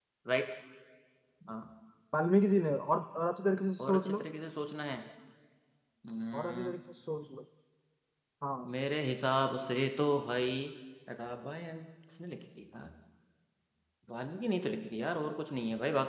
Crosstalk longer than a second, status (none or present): none